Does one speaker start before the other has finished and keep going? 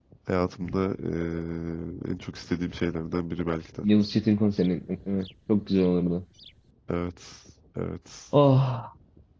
No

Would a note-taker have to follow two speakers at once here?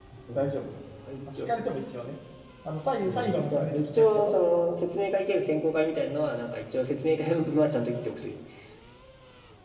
Yes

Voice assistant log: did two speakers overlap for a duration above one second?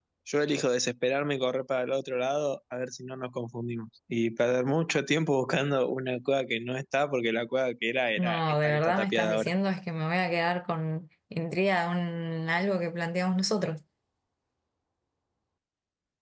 Yes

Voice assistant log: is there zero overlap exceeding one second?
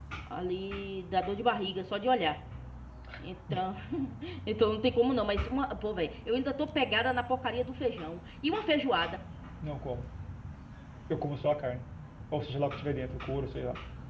Yes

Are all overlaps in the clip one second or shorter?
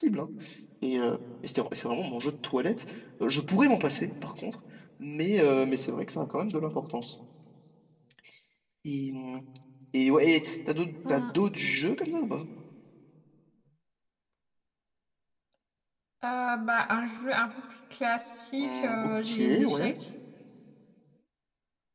No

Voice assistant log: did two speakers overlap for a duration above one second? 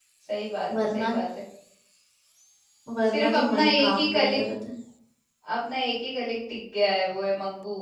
Yes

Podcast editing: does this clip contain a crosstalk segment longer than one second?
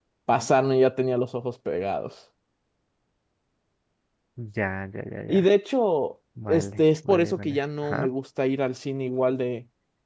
Yes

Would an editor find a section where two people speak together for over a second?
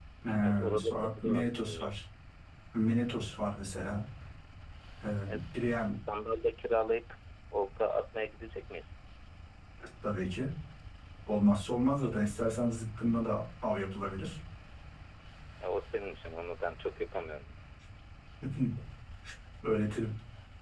Yes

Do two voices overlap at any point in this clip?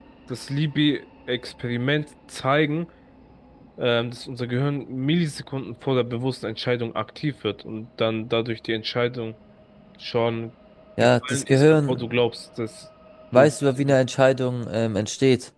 Yes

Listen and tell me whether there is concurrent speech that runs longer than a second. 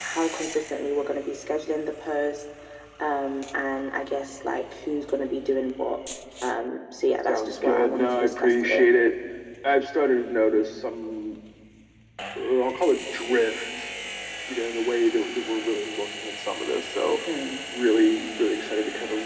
Yes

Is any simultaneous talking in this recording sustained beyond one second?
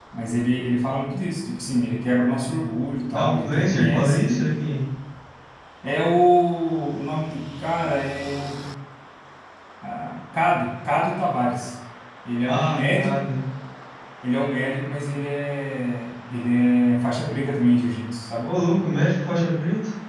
Yes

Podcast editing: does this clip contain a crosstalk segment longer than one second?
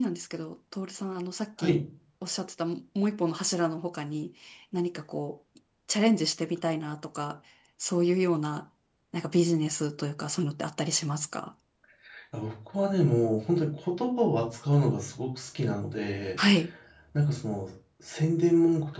No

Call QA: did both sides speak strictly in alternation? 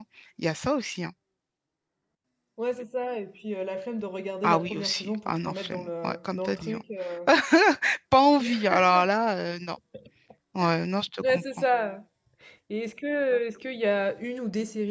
No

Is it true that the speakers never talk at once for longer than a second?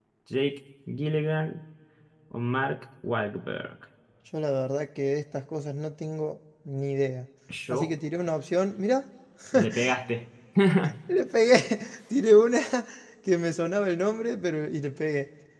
Yes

